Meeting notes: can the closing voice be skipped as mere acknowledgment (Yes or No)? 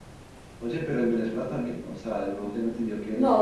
No